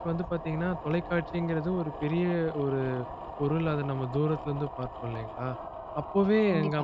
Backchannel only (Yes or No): Yes